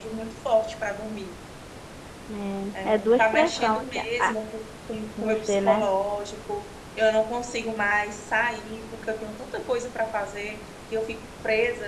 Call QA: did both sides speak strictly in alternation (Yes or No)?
No